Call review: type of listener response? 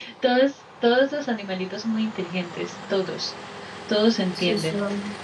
listening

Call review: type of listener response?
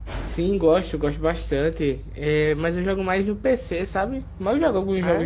listening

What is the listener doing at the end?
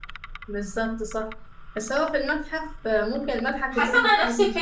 taking over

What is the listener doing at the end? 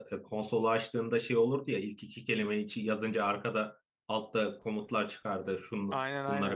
listening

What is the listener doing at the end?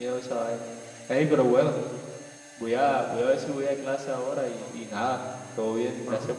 listening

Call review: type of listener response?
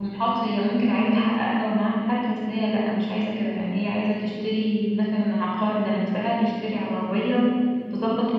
listening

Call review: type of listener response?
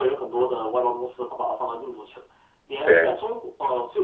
listening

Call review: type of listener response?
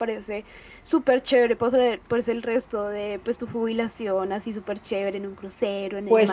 taking over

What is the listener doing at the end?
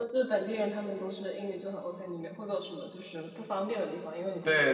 taking over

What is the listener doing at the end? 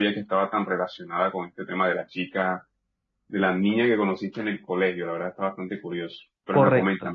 taking over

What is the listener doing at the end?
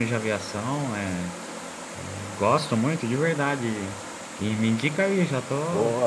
taking over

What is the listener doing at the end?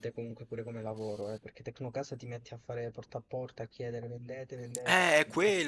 taking over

